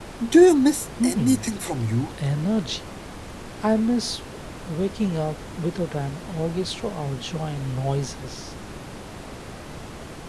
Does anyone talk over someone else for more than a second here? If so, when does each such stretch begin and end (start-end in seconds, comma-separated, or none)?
none